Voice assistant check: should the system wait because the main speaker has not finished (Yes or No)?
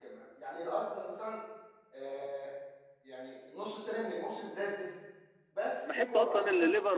No